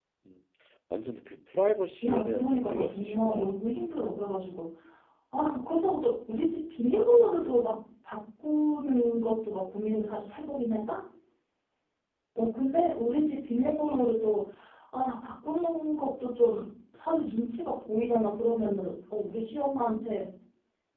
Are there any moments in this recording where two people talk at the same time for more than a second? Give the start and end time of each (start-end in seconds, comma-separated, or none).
2.0-3.6